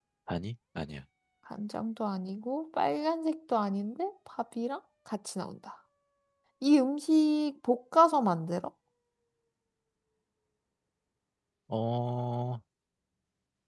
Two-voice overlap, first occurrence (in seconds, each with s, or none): none